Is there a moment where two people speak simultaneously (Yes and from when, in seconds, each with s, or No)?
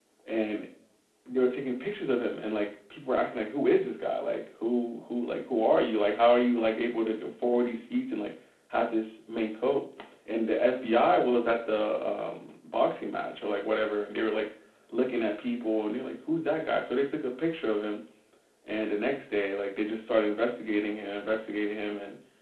No